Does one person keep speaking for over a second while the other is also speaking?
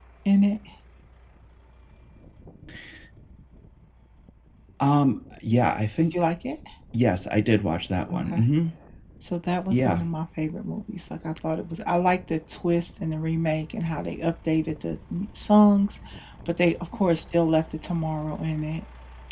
No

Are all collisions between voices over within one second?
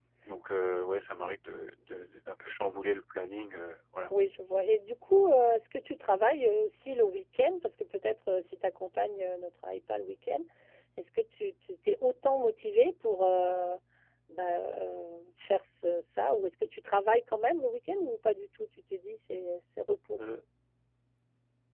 Yes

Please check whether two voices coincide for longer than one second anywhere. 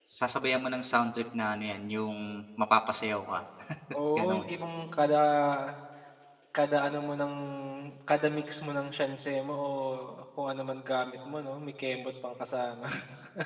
No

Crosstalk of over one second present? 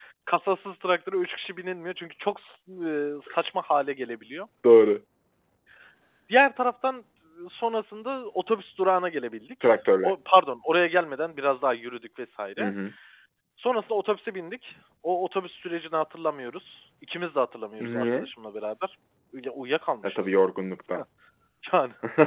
No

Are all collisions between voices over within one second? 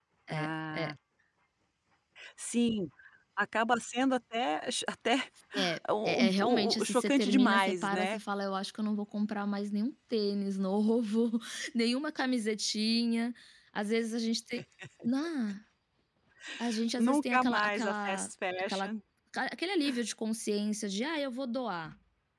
No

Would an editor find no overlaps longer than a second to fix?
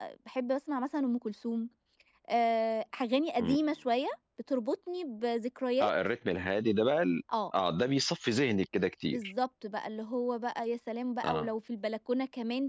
Yes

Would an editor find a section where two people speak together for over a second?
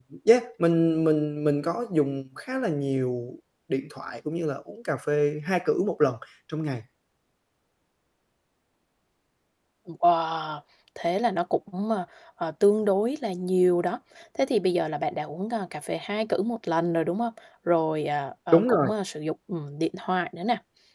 No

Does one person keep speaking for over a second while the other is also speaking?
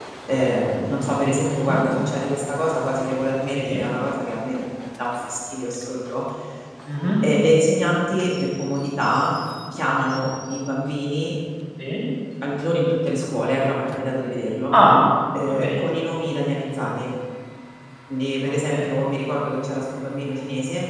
No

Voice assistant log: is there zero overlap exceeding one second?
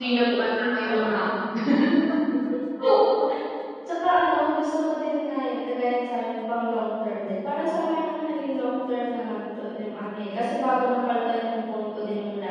Yes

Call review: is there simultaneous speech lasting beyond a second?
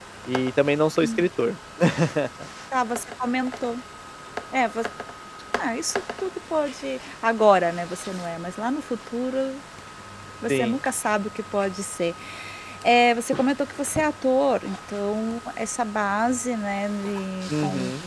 No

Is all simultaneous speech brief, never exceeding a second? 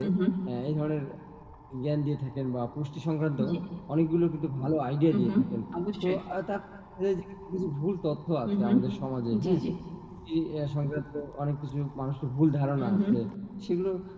Yes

